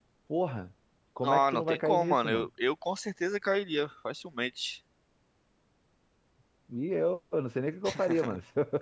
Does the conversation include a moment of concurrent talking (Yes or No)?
Yes